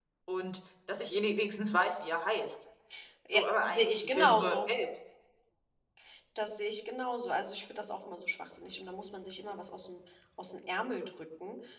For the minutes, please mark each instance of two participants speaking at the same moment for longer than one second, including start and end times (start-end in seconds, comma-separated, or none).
3.3-4.7